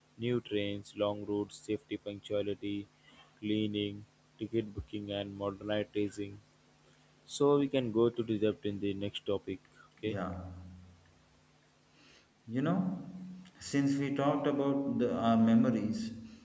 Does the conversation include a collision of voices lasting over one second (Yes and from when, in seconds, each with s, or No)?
No